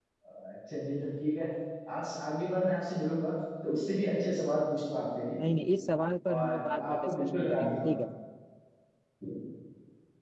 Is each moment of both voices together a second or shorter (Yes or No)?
No